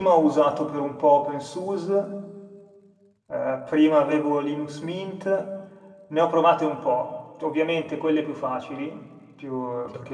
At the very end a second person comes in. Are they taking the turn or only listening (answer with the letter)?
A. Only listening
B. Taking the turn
A